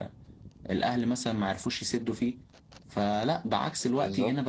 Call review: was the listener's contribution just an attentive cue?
Yes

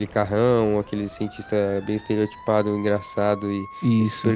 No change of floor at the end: Yes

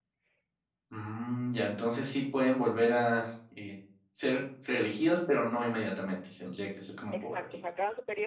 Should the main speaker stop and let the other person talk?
Yes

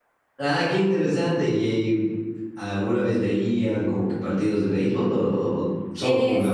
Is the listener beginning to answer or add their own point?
Yes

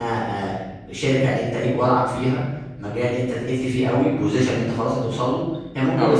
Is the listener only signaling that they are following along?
Yes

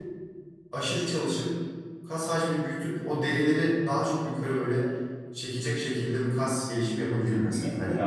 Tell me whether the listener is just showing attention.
No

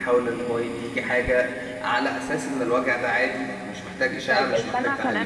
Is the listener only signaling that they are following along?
No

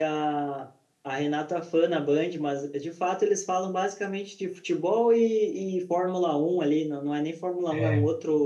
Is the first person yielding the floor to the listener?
No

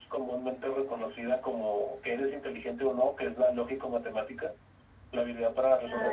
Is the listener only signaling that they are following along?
Yes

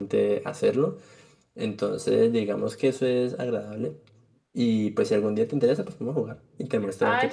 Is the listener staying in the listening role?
No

